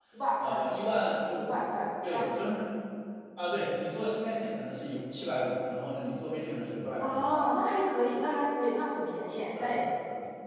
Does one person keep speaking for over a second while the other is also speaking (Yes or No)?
No